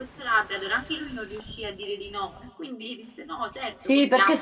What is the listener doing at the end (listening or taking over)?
taking over